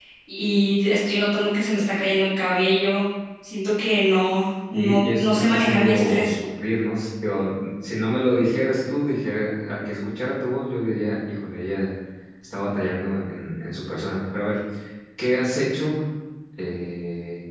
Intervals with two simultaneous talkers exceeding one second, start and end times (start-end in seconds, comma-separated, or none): 4.7-6.3